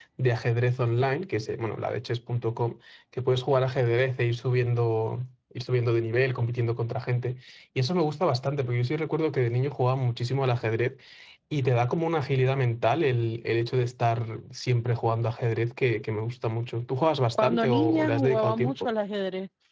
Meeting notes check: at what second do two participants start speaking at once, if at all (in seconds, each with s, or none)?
17.4 s